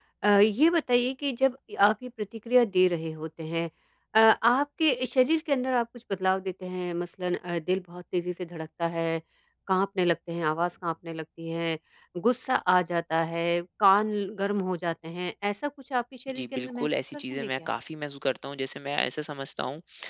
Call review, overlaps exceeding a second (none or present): present